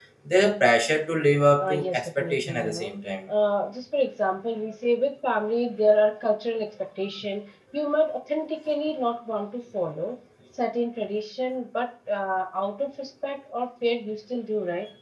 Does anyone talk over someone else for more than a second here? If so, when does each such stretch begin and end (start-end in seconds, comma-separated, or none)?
1.6-2.9